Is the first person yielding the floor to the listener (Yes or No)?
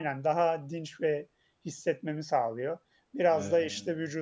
No